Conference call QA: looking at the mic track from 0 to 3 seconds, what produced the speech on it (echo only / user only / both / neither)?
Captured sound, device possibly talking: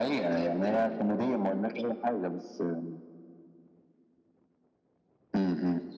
echo only